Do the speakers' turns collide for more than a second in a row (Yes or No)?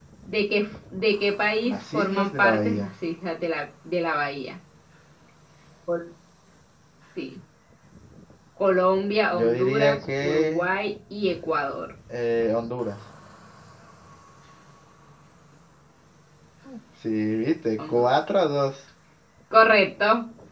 Yes